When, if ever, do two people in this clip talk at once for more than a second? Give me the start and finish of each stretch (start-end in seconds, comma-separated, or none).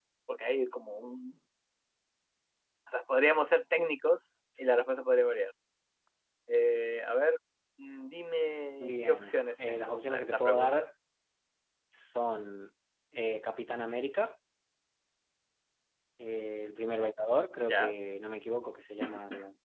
8.8-10.9